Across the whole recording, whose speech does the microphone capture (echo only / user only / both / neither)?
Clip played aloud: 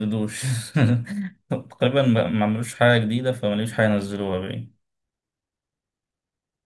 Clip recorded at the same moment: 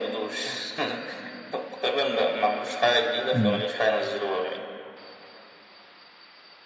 both